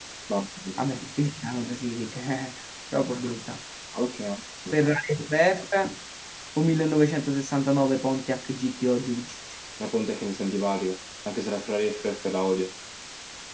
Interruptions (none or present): none